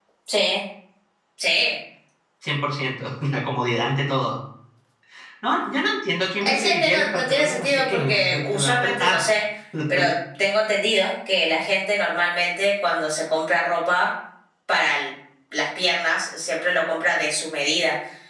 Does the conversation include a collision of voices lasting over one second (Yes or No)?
Yes